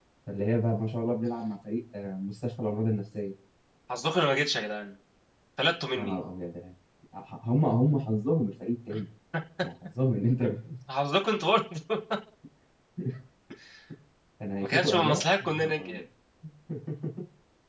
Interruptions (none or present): present